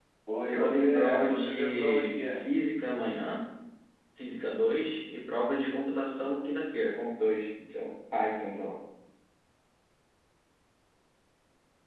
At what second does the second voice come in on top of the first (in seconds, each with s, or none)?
0.5 s